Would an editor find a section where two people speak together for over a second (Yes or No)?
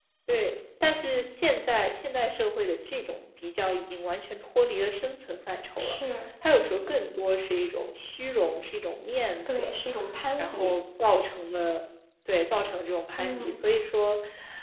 No